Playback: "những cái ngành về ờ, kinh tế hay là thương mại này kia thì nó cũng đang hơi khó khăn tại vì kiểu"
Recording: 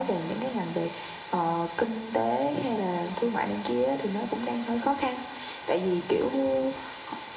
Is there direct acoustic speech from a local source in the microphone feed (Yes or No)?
No